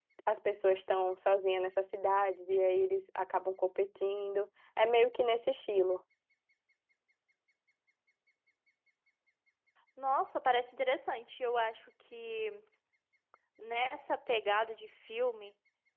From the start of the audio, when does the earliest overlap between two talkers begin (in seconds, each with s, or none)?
none